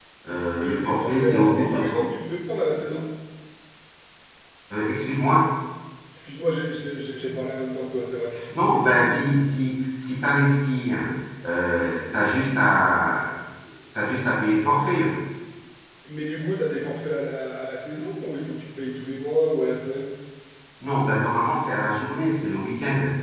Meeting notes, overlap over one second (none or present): present